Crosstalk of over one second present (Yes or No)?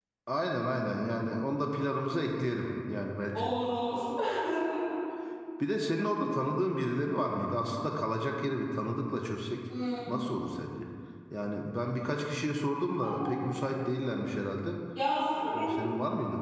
No